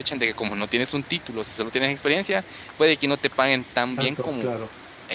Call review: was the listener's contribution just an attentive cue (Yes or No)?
Yes